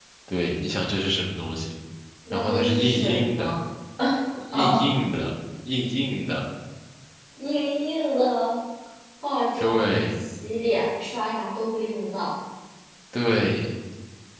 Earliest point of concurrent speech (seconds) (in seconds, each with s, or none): 2.3 s